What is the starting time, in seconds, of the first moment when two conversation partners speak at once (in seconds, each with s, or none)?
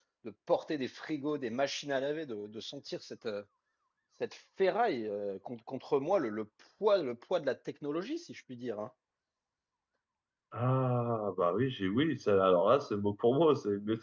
none